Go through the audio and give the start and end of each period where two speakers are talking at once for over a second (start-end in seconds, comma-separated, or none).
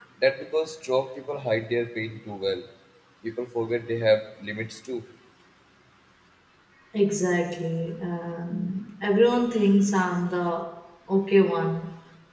none